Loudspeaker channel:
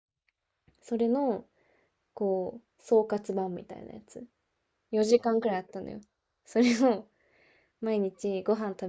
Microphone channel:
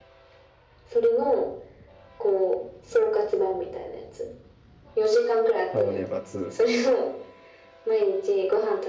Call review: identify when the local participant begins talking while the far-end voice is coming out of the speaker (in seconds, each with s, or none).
5.7 s